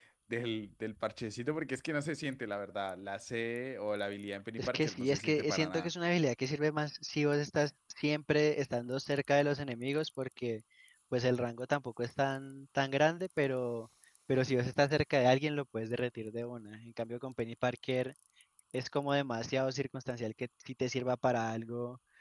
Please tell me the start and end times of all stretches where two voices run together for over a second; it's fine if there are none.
4.6-5.9

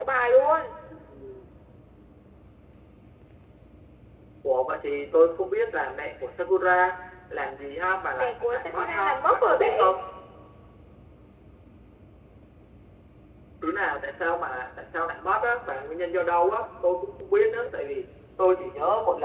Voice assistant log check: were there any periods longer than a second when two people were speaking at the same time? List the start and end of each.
8.2-10.0

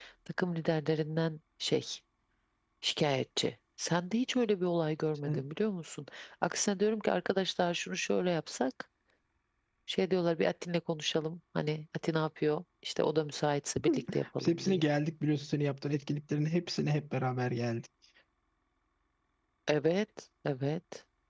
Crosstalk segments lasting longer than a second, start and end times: none

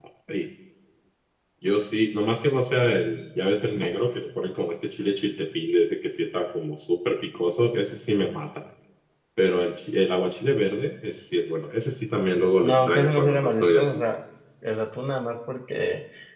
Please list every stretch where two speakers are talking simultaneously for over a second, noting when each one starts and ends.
12.6-14.0

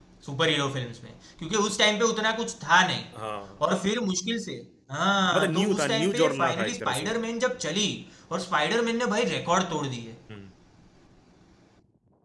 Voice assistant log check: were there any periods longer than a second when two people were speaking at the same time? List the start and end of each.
5.3-7.1

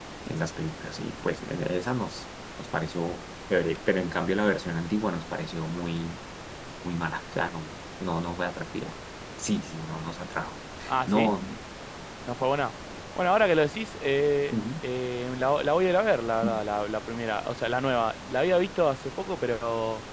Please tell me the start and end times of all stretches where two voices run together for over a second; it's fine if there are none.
none

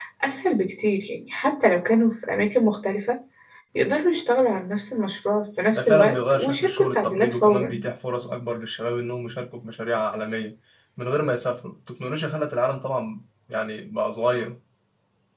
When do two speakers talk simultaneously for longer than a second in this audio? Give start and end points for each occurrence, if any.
5.7-7.8

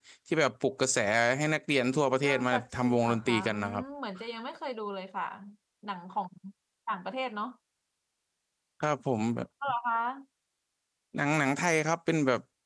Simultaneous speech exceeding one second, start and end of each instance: 2.2-3.8

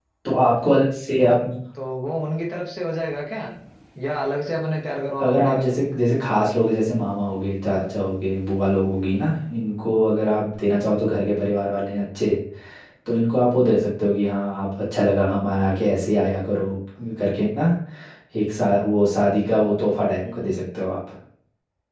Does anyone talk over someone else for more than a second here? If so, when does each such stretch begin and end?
none

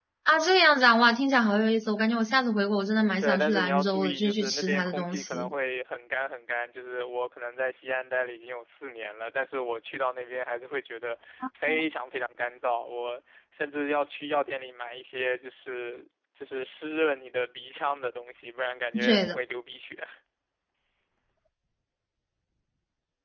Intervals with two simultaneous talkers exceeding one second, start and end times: 3.2-5.5

